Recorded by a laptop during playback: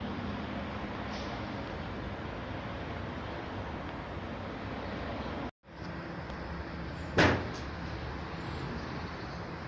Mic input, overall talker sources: neither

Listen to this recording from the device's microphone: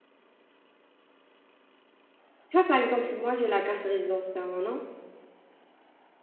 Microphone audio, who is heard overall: user only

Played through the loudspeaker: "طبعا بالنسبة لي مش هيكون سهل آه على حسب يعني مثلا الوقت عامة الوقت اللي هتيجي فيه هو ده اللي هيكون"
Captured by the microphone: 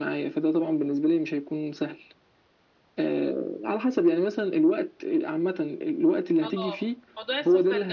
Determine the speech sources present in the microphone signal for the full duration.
both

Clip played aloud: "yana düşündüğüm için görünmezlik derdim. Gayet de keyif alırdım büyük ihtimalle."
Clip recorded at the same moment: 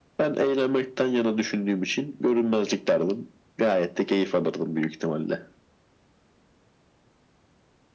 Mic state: echo only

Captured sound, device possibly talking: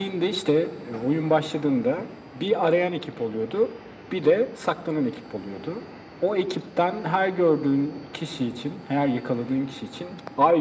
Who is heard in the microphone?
echo only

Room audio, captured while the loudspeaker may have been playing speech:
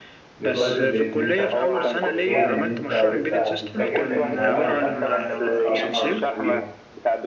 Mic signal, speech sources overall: both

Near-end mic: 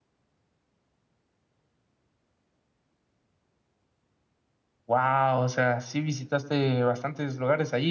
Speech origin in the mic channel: user only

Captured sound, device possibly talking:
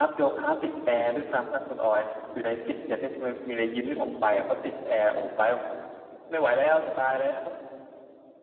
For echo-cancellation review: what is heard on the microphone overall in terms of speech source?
user only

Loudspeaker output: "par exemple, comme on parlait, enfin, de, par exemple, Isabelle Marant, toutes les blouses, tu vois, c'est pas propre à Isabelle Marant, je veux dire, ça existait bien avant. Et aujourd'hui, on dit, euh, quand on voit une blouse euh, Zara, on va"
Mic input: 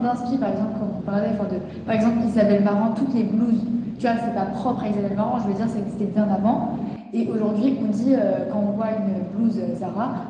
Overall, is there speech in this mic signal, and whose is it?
echo only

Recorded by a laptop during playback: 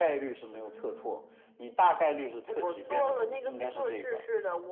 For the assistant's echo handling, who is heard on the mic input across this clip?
both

